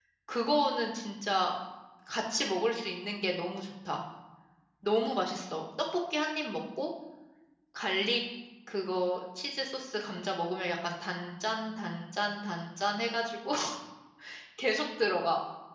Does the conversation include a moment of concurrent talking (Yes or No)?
No